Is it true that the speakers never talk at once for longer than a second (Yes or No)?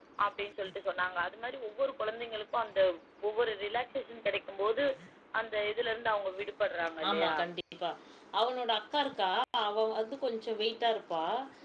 Yes